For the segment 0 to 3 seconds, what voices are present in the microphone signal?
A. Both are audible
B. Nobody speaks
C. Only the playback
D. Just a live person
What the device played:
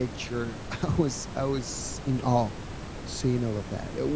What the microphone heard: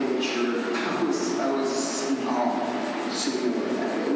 C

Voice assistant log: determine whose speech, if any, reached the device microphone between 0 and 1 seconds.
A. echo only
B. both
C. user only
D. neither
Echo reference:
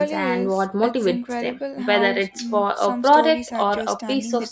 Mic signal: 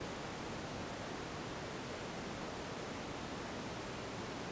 D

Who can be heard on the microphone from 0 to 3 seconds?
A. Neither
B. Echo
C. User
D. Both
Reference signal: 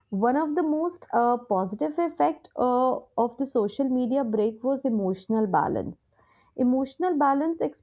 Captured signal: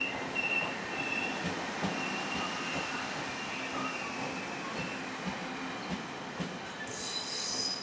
A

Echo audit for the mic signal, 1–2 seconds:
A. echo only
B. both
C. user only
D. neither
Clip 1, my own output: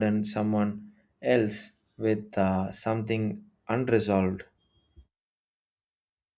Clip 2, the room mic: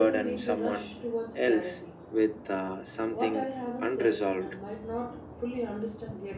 B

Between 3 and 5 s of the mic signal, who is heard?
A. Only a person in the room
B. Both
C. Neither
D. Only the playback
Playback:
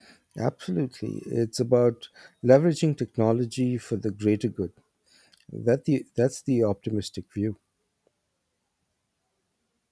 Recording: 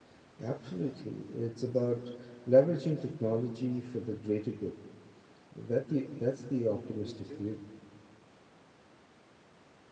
D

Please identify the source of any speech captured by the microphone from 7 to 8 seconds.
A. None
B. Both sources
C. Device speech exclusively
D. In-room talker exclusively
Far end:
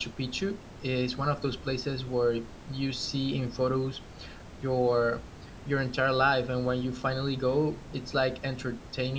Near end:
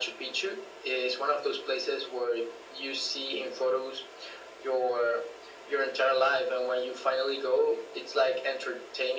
C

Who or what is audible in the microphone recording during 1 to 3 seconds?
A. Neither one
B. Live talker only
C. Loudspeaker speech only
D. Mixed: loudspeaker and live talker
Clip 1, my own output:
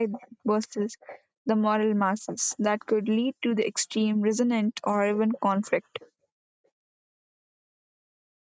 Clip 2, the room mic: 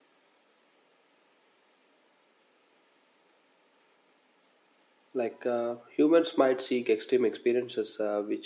A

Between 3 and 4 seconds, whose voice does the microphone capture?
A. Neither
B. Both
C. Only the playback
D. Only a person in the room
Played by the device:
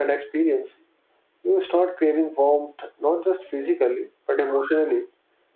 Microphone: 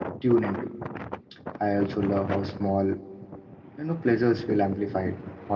D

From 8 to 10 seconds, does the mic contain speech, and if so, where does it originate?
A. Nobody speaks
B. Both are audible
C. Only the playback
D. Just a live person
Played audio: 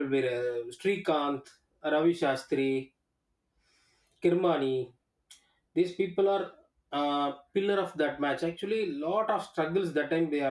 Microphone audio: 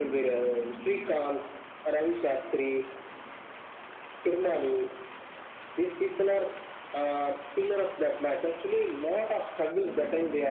C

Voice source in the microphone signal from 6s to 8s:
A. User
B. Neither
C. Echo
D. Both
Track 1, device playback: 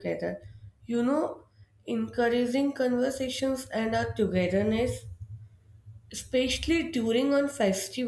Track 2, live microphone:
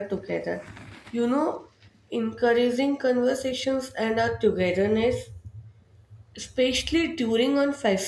C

